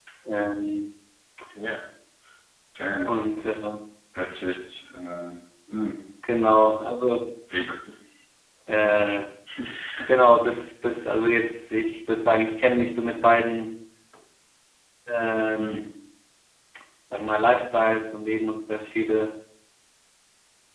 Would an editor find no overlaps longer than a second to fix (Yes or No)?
Yes